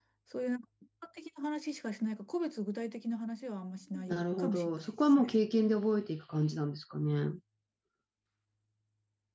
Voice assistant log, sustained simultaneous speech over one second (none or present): present